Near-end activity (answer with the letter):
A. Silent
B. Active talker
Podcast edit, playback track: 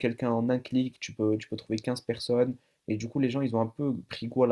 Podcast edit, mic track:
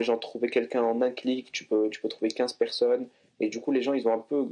A